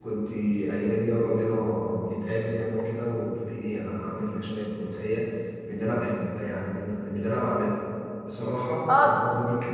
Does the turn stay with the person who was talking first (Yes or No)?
Yes